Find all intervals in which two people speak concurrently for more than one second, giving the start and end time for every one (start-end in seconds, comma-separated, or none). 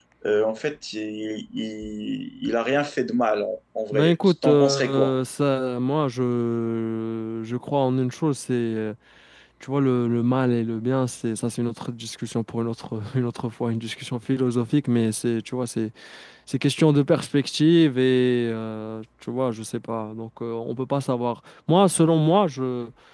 3.9-5.1